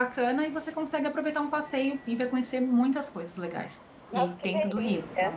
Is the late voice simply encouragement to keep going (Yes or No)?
No